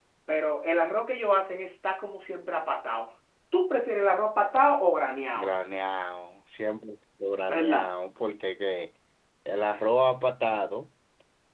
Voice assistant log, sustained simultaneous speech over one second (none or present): none